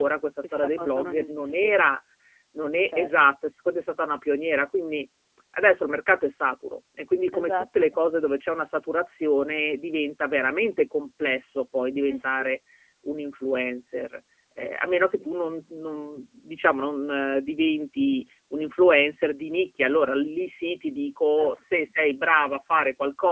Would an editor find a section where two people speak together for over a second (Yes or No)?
Yes